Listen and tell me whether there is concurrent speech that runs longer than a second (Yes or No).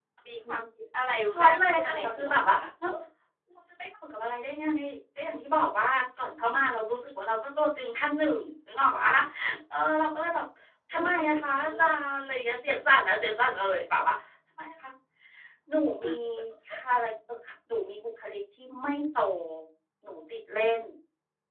Yes